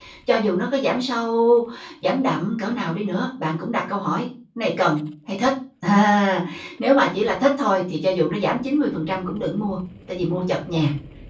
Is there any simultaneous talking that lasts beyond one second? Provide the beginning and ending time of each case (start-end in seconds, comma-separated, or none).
none